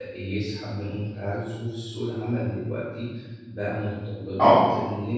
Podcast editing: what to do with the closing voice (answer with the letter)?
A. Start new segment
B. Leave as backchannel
B